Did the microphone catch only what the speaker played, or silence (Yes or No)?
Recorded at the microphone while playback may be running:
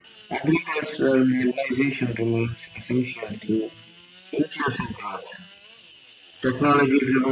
Yes